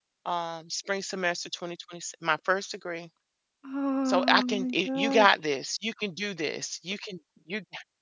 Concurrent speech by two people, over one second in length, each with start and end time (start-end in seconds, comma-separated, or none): 4.1-5.3